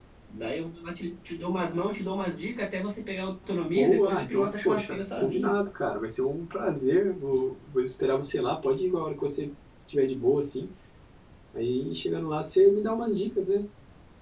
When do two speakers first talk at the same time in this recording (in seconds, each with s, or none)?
3.8 s